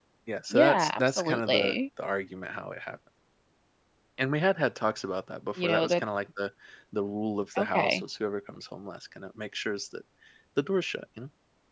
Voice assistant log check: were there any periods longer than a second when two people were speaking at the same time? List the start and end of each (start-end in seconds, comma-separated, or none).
0.5-1.7